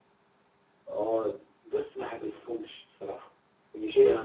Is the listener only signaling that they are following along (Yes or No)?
Yes